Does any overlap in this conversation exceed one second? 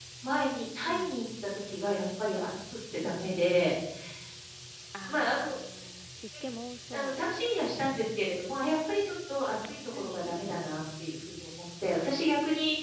No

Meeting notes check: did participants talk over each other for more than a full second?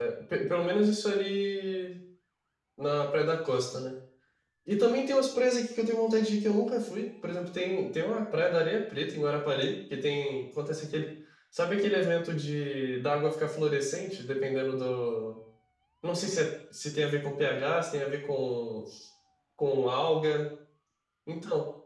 No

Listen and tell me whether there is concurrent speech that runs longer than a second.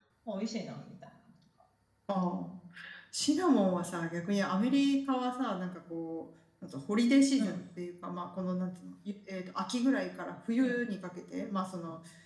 No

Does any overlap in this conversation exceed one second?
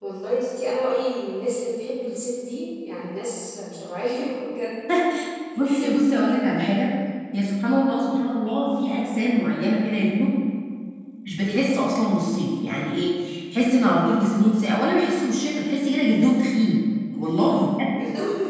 No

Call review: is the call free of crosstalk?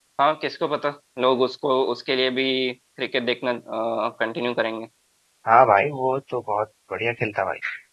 Yes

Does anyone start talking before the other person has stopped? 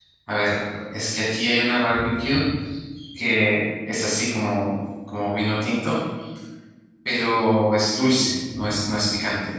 No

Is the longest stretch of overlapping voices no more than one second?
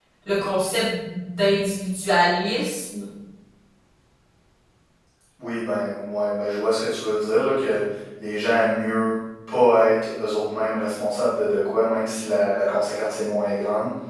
Yes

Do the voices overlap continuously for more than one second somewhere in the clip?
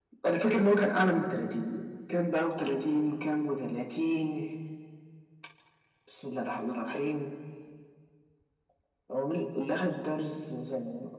No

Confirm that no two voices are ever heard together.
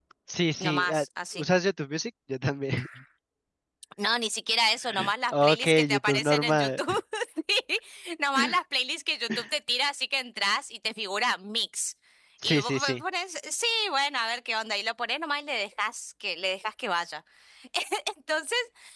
No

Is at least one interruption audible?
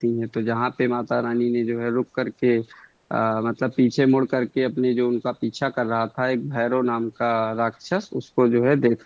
No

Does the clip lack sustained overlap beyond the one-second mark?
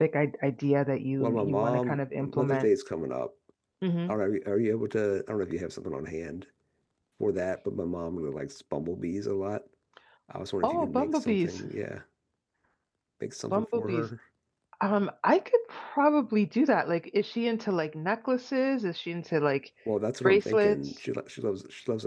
No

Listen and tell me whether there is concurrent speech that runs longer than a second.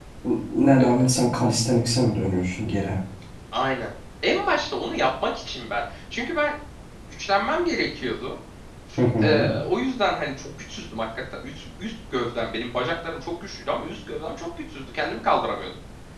No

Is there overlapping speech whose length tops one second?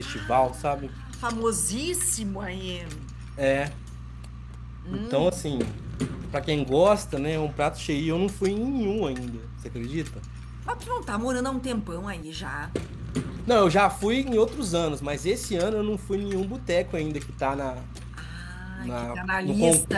Yes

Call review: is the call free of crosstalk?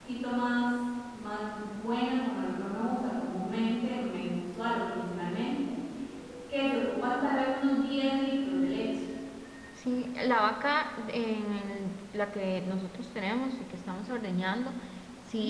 Yes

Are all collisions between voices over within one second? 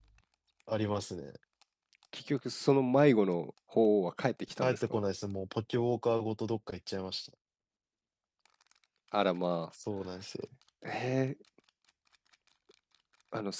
Yes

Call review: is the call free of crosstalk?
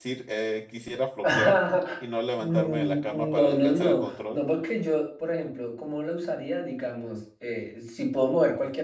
No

